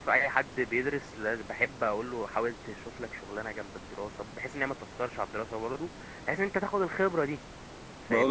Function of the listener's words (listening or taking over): taking over